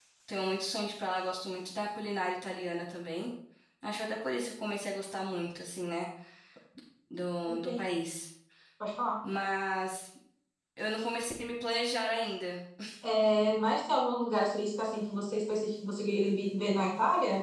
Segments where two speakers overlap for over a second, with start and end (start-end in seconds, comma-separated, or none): none